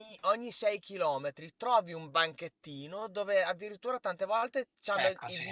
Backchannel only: Yes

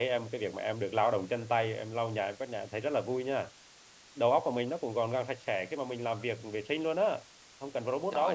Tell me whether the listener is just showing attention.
No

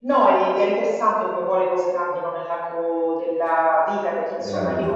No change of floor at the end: Yes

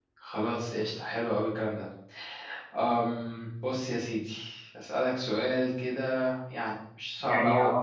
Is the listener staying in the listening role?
No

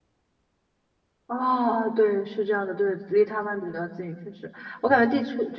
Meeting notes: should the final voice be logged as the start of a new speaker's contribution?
No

